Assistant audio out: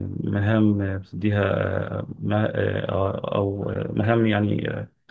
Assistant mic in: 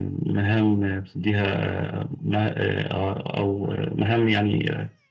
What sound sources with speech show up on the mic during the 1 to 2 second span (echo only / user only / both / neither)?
echo only